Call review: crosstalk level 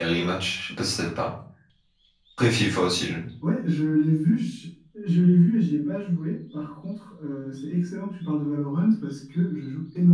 none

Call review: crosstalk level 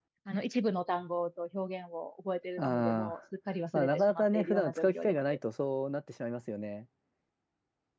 present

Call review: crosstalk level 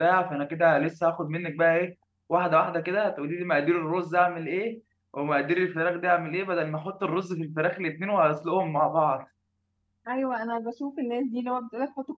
none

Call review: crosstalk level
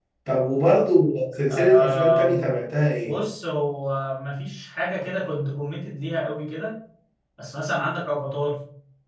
present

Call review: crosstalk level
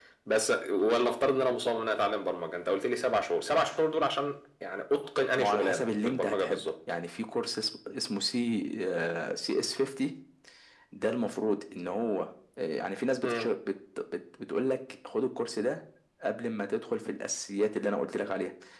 present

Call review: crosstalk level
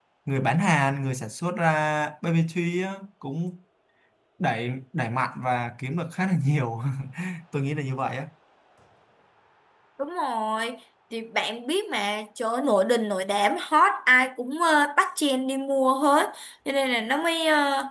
none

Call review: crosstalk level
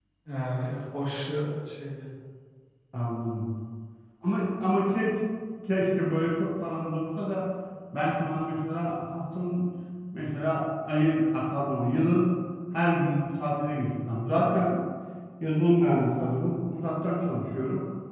none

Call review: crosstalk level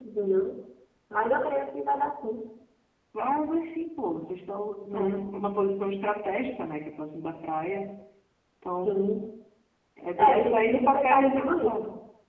present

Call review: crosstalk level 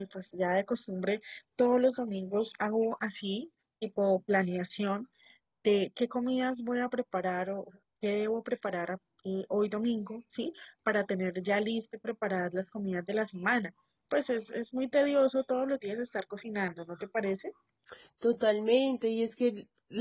none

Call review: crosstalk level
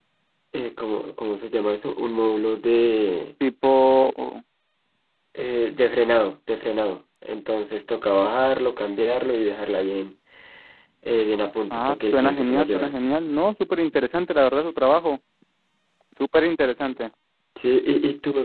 present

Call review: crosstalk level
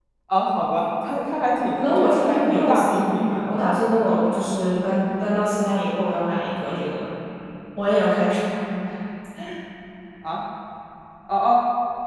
present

